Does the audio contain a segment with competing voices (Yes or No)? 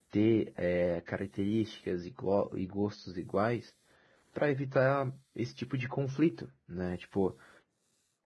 No